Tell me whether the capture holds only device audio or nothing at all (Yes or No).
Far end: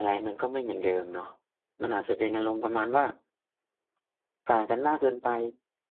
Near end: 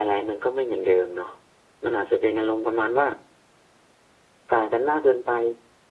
Yes